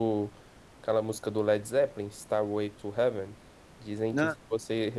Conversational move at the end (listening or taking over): listening